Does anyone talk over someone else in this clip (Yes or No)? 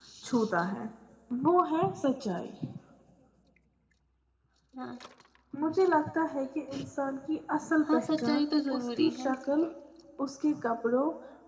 Yes